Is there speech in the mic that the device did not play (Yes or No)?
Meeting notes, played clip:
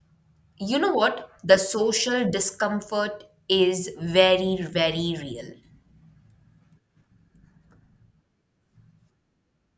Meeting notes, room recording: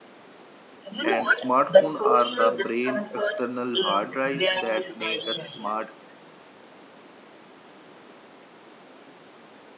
Yes